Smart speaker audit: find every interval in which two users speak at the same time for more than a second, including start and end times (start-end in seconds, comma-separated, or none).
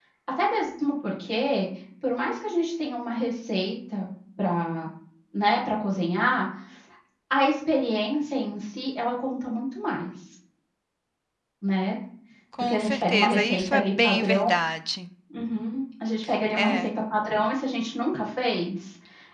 12.6-14.4